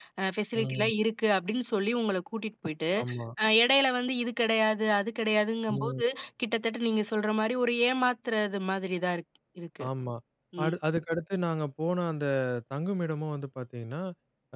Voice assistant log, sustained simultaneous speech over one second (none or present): none